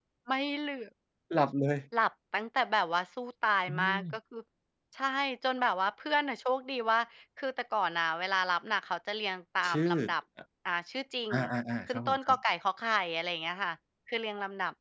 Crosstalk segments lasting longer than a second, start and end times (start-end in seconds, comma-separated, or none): none